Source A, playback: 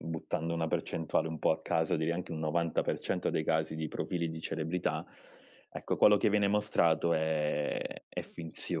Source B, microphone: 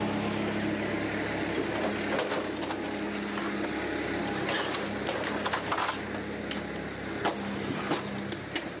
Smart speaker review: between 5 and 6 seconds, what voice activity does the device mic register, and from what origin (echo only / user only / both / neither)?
neither